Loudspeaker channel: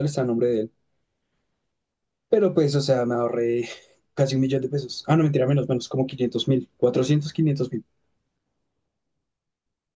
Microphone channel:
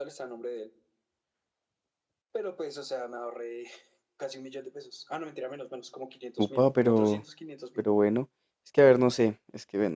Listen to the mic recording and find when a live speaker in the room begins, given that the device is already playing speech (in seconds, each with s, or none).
6.4 s